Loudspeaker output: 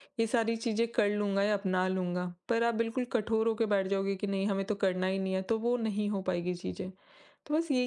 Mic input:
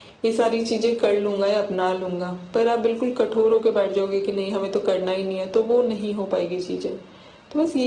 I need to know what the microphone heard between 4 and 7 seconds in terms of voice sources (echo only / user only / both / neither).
echo only